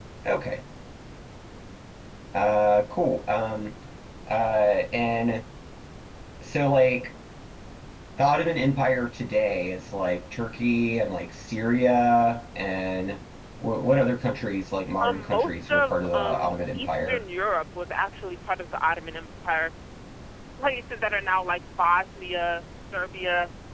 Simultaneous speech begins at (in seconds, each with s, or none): 15.0 s